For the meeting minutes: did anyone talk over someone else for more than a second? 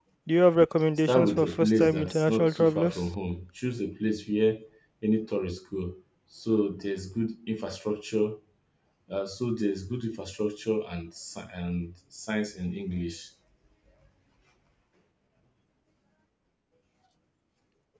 Yes, from 1.1 s

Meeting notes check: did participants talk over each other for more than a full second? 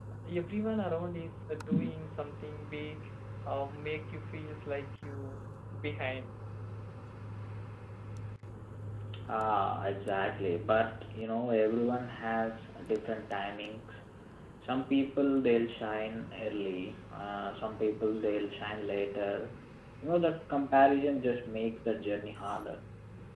No

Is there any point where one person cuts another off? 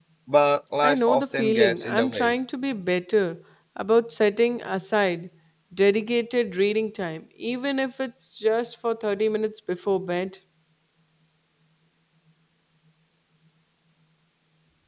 Yes, from 0.8 s

